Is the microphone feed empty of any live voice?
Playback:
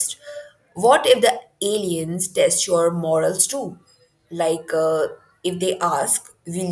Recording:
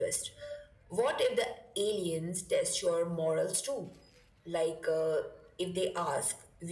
Yes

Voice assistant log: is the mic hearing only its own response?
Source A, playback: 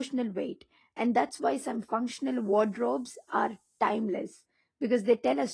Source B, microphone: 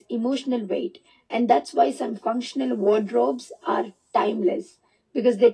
Yes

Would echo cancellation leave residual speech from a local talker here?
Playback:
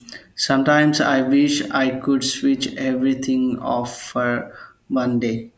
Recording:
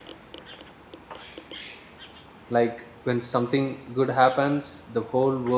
Yes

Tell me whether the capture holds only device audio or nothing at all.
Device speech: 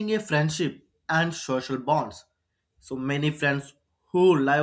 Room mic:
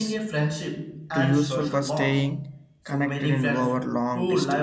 No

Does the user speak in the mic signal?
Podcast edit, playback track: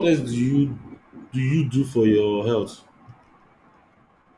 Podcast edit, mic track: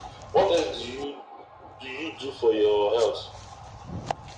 No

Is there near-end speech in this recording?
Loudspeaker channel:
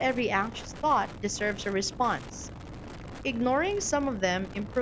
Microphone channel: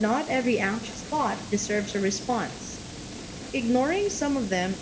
No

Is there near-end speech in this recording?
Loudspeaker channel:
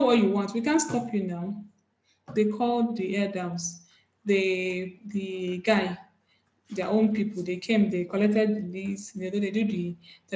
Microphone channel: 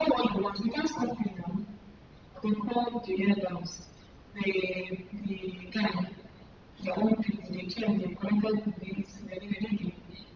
No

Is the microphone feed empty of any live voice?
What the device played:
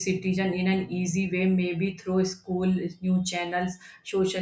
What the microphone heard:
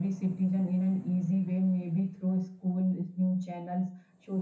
Yes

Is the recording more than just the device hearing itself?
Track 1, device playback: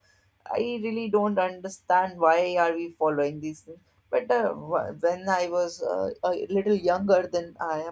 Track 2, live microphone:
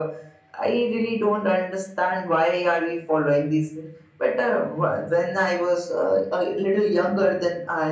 No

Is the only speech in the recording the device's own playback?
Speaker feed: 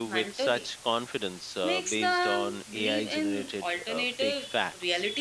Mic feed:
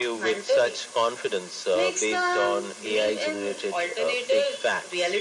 Yes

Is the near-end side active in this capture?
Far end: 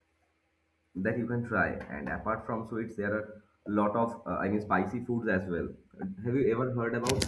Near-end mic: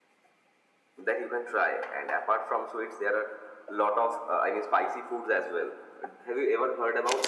No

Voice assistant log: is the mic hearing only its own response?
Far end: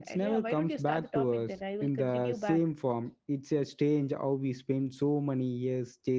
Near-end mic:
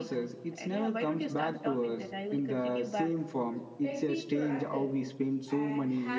No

